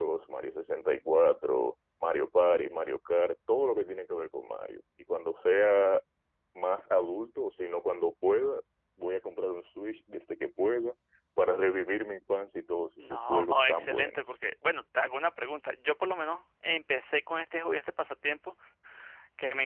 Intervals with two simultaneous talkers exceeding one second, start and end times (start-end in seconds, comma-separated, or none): 13.0-14.4